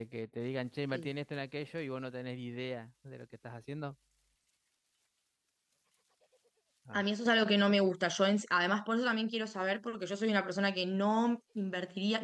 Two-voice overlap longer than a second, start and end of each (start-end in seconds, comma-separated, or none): none